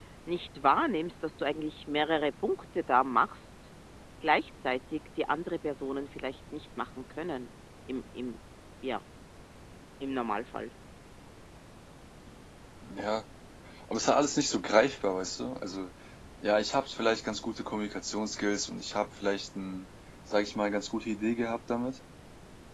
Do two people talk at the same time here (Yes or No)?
No